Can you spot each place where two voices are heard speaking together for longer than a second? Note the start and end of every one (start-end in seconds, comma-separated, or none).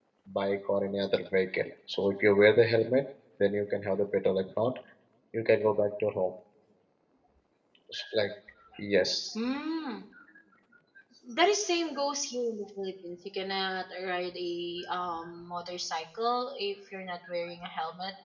none